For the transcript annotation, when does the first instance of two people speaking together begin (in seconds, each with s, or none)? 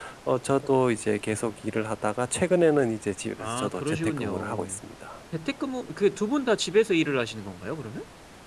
3.4 s